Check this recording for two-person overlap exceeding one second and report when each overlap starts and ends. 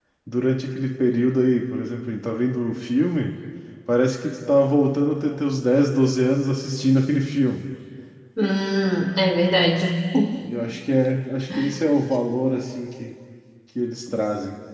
none

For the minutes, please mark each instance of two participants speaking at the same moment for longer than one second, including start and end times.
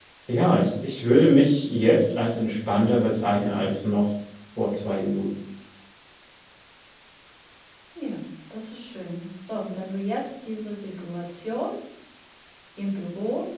none

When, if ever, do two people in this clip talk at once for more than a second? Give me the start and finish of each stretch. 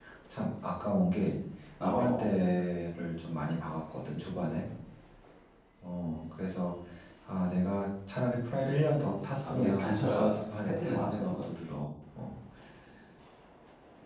9.4-11.5

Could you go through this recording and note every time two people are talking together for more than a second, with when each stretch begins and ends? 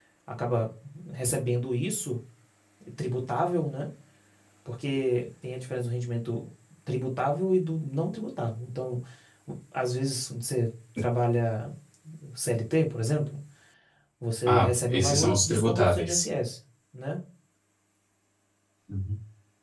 14.5-16.2

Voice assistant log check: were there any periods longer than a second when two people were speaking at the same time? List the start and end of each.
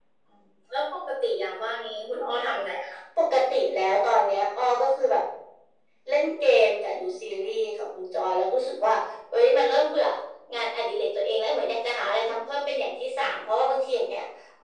none

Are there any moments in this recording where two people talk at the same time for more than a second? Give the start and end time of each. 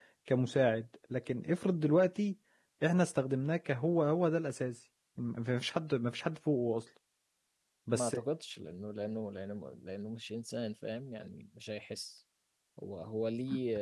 none

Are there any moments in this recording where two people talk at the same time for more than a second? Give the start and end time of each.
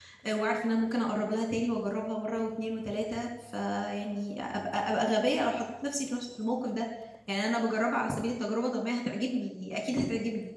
none

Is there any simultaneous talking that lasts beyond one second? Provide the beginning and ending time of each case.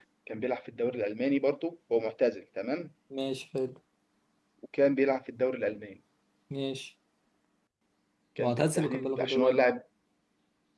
8.4-9.6

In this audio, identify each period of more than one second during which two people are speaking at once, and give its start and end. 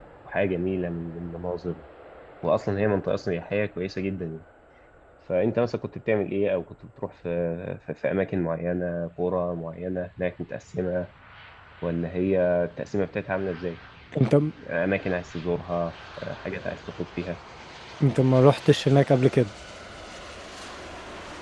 none

